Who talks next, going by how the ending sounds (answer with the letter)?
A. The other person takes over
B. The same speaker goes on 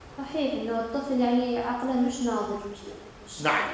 A